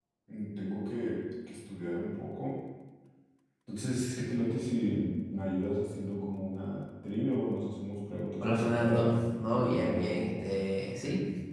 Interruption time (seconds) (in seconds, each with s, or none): 8.4 s